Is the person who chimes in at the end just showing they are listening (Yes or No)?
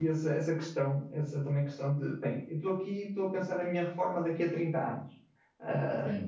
Yes